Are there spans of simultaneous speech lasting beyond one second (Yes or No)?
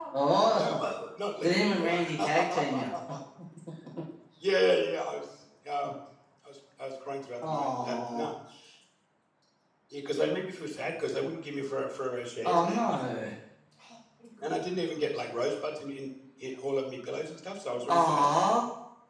Yes